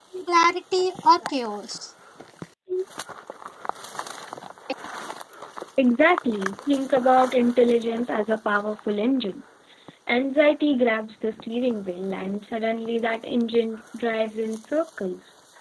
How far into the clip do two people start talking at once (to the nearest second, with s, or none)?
none